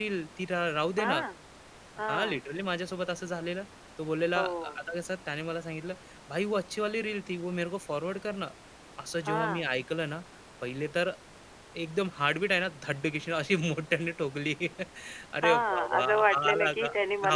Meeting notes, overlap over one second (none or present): present